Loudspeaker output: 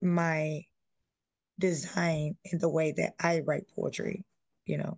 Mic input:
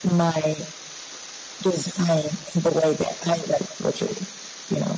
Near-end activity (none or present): none